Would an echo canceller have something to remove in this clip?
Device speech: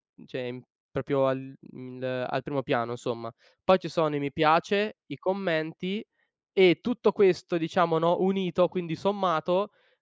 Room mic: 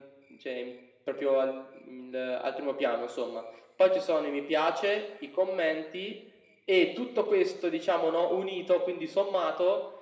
Yes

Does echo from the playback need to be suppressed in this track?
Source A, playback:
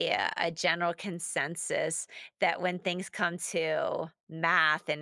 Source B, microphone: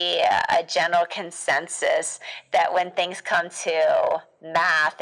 Yes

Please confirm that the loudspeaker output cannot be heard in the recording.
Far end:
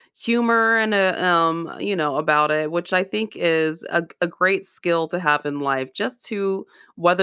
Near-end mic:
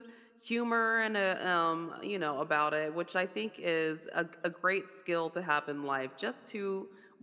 No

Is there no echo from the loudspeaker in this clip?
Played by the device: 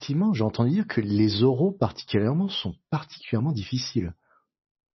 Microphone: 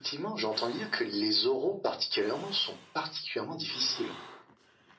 No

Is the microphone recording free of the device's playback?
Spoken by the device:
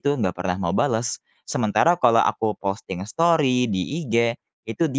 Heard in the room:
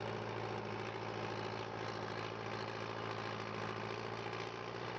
Yes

